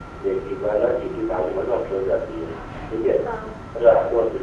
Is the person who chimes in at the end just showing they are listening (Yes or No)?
Yes